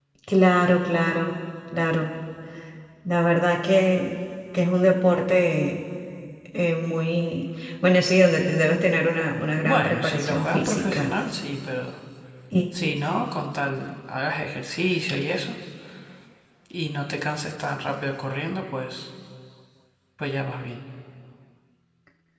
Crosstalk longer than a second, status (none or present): present